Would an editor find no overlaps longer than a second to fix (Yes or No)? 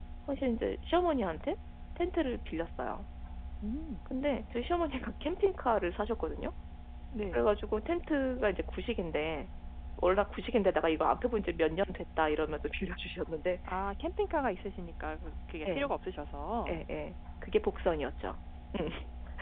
Yes